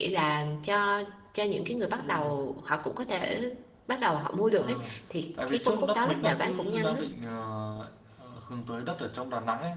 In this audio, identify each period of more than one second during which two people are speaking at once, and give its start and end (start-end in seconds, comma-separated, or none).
5.5-7.0